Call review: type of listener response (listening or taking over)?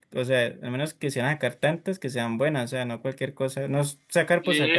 taking over